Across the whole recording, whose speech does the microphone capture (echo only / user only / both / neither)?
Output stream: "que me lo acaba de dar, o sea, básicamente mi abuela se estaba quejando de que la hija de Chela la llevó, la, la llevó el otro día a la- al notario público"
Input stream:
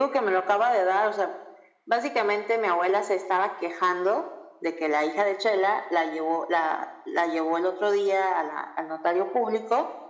echo only